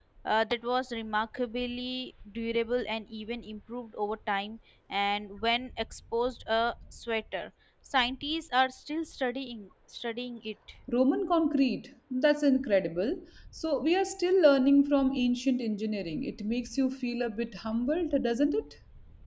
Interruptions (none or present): none